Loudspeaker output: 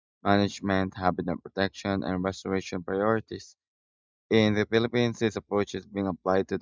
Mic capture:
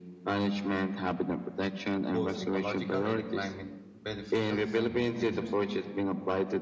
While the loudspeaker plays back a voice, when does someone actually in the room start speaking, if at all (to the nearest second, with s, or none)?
2 s